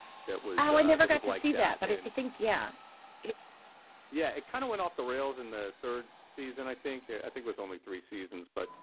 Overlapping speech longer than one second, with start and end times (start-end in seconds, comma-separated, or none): 0.6-2.1